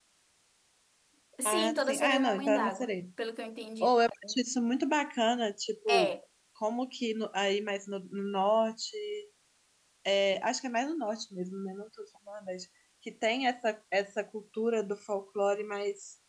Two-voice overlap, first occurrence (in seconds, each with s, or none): 1.4 s